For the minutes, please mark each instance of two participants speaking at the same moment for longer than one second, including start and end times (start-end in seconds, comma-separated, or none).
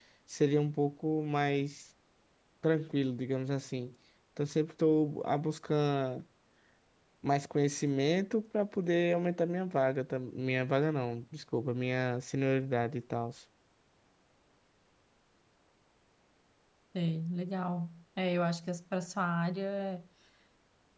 none